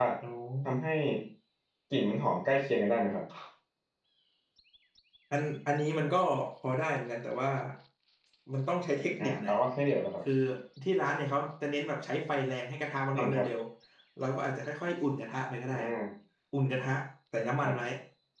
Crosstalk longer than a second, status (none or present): none